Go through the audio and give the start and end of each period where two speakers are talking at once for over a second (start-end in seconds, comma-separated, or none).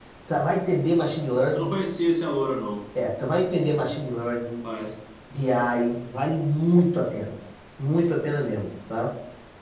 none